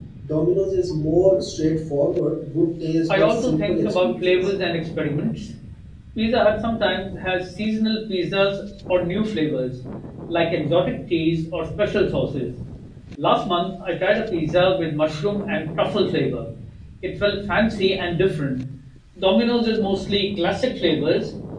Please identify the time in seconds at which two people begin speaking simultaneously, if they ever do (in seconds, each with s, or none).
3.1 s